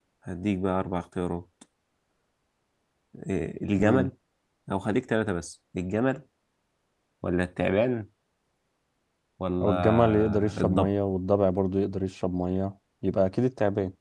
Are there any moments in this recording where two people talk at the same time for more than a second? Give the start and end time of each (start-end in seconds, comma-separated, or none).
9.6-10.9